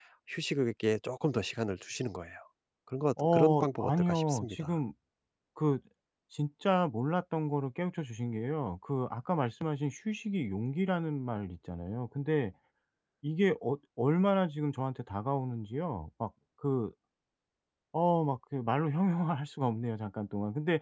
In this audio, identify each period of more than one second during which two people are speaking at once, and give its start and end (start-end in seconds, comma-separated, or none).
3.2-4.7